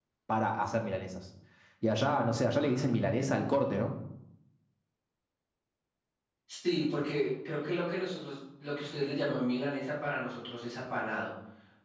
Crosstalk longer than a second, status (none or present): none